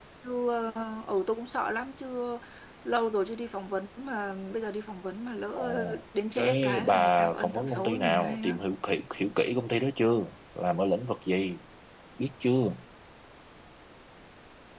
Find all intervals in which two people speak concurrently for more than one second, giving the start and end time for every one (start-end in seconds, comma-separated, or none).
6.4-8.6